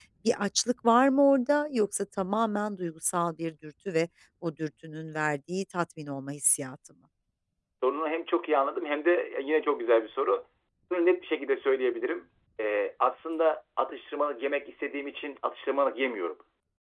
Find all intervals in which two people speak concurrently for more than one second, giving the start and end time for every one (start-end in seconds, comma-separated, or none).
none